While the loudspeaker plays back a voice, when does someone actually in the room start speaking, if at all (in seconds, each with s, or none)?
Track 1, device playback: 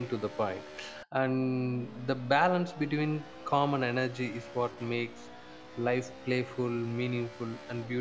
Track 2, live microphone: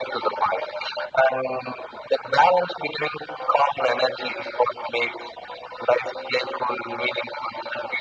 none